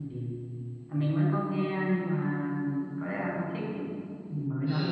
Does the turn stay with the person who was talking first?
No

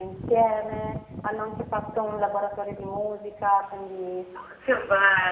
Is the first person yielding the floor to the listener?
Yes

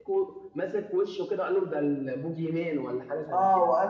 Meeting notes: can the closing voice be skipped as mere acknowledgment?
No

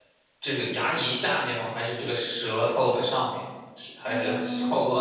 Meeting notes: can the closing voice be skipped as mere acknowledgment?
No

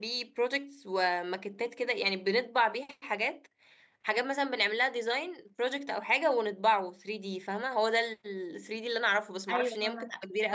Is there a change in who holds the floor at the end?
Yes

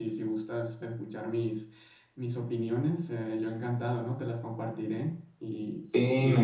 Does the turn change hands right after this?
Yes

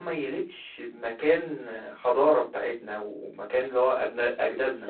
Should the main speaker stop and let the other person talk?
Yes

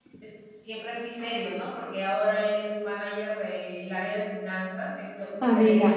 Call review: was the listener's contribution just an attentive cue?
No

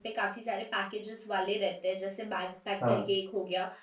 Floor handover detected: No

